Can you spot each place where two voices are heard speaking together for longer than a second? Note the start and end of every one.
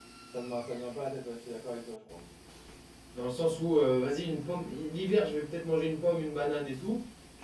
none

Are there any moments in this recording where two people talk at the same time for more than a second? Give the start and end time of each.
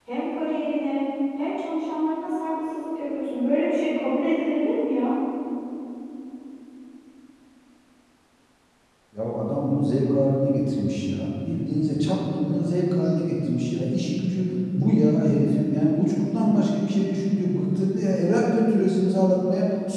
none

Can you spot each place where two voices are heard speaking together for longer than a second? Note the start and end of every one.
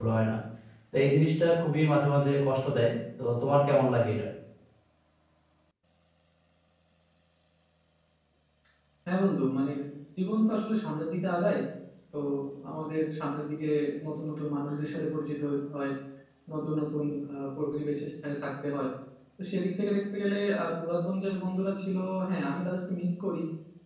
none

